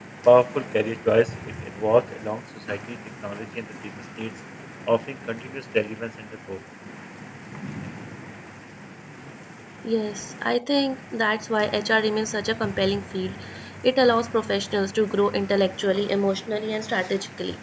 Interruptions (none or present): none